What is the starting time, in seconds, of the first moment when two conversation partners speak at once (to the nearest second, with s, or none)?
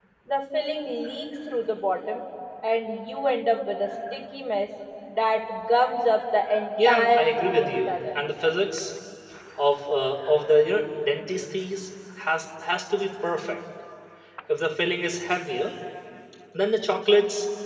7 s